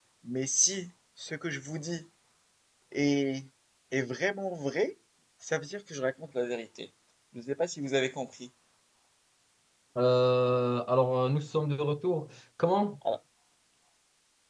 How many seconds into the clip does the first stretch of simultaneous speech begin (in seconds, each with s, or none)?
none